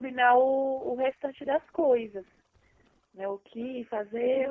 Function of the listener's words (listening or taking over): taking over